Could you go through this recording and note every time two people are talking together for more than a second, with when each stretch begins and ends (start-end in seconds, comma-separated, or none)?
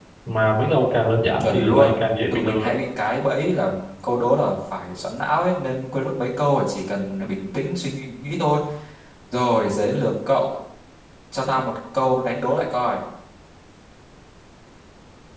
1.4-2.7